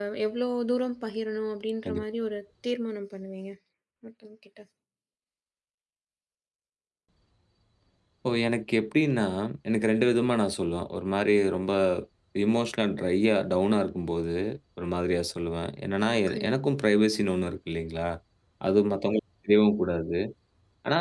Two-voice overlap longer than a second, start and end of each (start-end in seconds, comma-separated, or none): none